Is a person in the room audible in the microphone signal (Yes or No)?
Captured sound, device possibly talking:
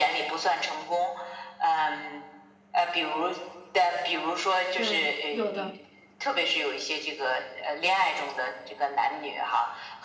Yes